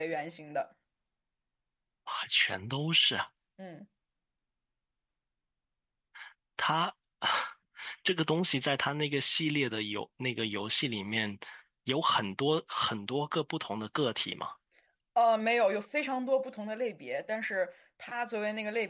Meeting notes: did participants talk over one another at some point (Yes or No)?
No